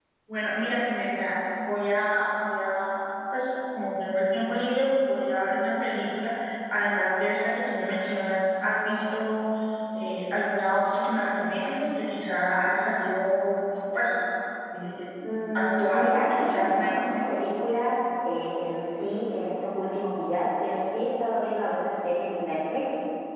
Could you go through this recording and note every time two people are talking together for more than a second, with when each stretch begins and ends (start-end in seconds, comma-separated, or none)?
15.5-17.0